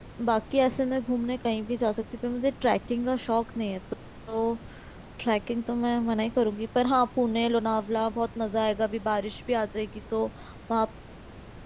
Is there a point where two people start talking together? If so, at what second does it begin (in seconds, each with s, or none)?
none